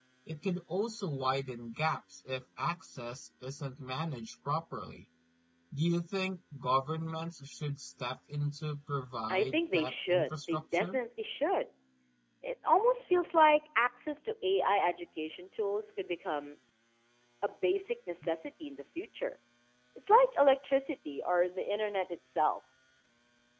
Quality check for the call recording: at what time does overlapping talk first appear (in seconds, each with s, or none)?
9.3 s